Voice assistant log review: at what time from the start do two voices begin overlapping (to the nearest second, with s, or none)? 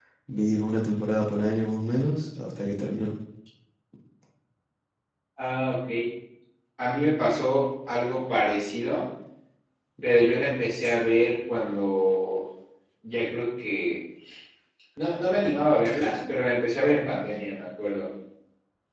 none